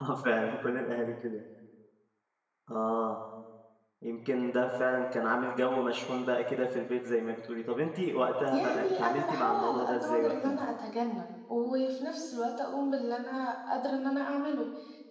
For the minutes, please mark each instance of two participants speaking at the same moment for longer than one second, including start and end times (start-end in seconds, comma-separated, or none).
8.5-10.5